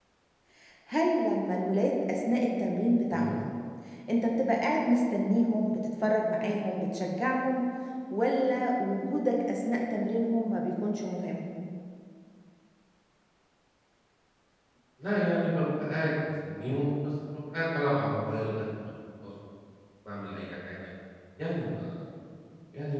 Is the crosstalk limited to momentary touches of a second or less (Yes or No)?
Yes